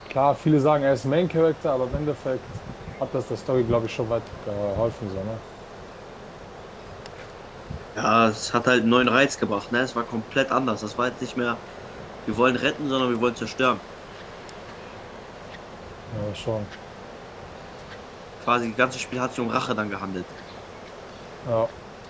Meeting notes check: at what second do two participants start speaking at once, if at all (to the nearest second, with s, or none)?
none